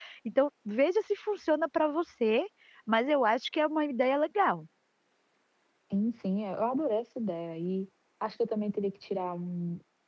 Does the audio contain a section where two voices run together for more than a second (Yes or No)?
No